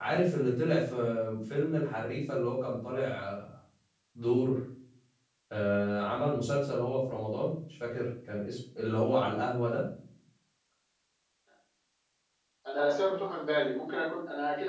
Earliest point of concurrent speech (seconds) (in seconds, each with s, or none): none